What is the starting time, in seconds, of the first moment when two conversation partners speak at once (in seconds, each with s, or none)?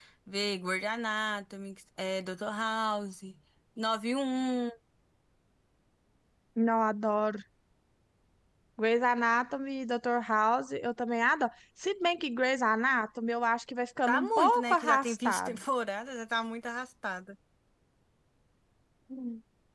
14.1 s